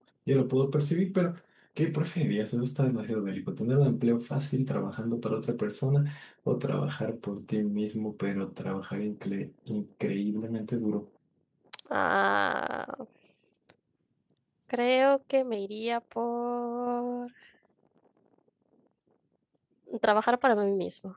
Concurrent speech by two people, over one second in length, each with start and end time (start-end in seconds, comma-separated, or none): none